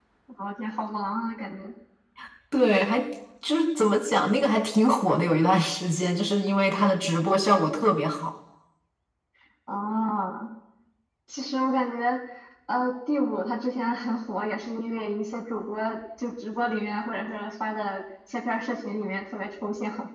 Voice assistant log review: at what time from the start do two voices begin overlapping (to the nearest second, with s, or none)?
none